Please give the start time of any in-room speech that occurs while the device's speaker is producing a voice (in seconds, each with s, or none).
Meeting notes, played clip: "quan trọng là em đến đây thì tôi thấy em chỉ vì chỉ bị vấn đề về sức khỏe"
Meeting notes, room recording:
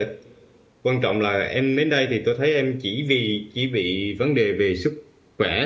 none